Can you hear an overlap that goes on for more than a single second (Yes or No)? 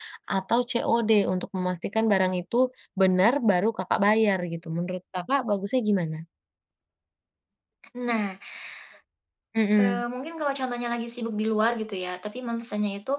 No